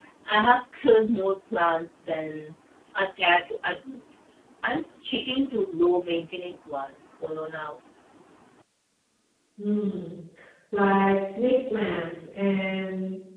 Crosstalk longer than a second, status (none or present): none